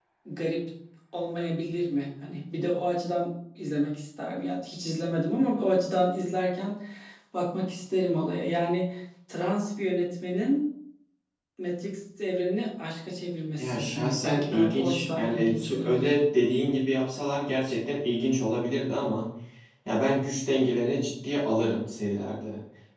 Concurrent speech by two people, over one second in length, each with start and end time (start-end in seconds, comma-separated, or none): 13.6-16.1